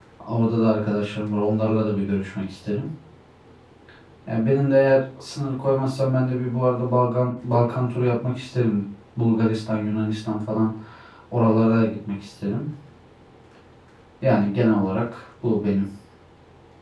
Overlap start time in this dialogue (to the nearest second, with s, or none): none